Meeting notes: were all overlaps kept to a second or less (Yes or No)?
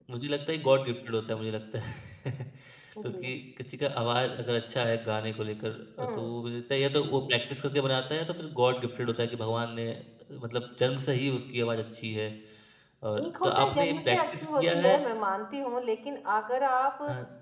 No